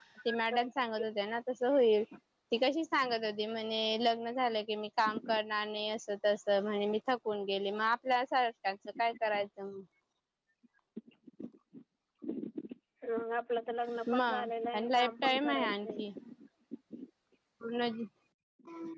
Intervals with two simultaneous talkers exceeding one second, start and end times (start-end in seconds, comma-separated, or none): 14.1-16.0